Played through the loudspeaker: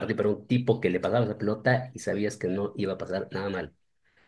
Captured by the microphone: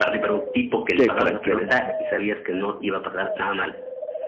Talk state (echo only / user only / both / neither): both